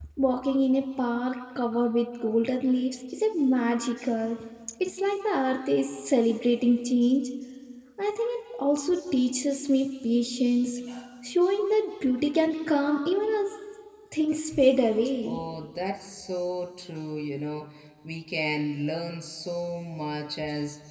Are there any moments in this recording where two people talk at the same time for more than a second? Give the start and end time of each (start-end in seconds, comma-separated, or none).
none